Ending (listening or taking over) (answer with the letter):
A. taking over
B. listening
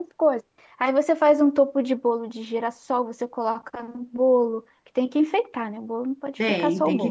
A